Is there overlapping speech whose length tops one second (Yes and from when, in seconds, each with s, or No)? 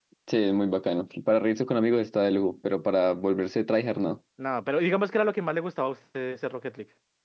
No